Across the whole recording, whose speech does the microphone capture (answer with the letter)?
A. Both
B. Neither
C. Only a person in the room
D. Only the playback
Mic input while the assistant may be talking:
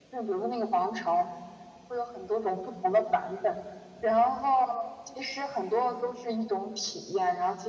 D